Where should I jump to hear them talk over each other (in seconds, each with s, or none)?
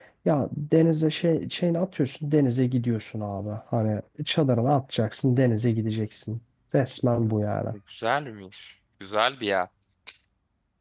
none